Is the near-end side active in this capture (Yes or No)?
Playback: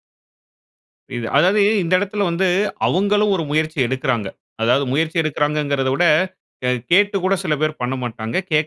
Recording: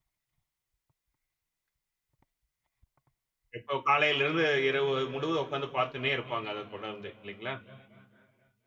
Yes